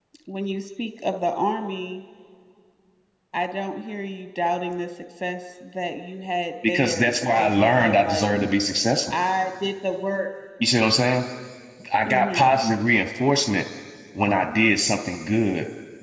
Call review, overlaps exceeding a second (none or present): present